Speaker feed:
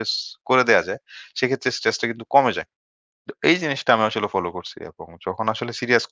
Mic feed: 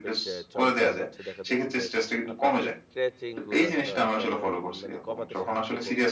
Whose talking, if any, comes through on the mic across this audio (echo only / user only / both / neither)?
both